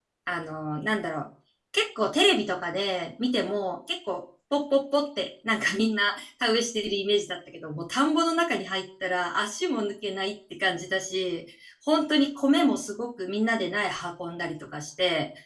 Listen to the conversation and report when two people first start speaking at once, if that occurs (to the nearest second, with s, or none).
none